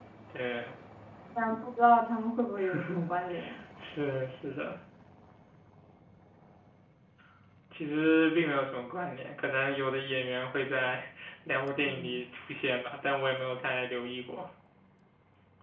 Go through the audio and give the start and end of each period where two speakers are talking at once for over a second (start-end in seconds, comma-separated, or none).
none